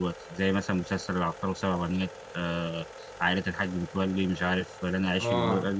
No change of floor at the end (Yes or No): No